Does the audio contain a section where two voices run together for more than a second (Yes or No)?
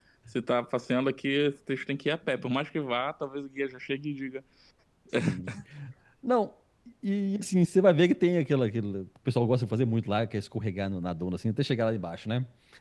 No